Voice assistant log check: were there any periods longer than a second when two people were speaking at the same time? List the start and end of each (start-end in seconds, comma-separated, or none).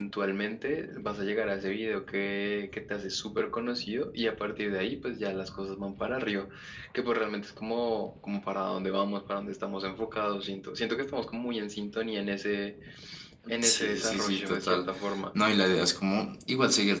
13.6-14.9